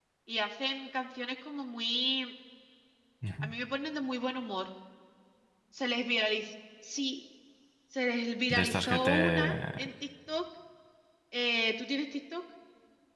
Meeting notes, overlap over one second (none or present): present